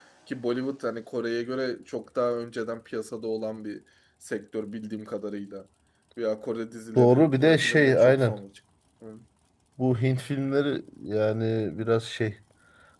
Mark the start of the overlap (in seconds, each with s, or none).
7.0 s